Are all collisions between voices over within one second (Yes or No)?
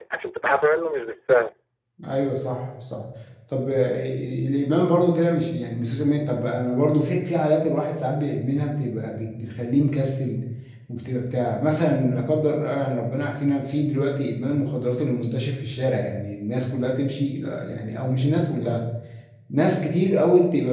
Yes